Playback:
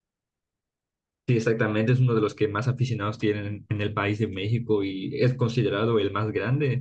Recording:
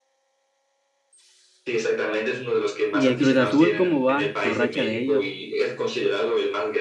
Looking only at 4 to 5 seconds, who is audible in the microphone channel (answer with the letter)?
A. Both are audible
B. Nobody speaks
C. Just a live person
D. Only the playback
A